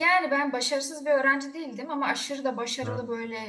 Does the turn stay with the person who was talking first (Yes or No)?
Yes